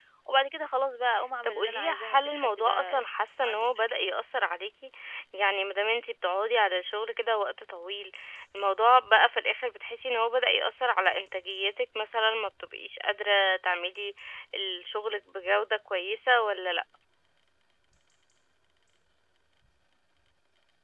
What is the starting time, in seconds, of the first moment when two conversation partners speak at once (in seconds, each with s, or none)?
1.4 s